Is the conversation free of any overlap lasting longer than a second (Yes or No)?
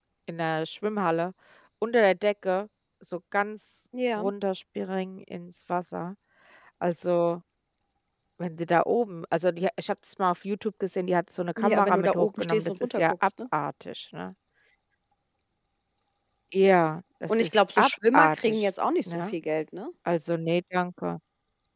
No